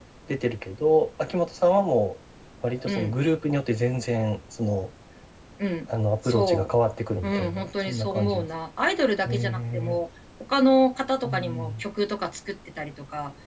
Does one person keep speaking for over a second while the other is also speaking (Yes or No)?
Yes